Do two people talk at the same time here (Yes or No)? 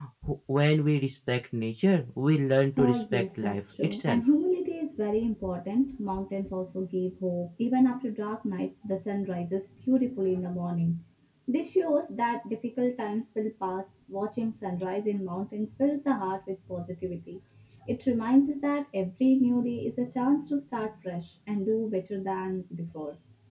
Yes